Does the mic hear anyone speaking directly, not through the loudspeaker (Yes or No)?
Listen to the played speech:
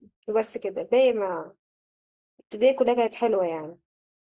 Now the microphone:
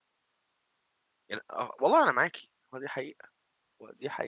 Yes